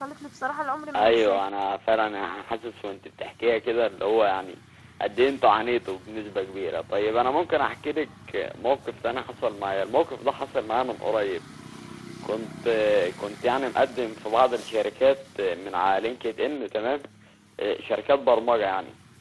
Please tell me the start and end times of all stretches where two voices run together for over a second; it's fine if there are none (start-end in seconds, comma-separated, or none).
none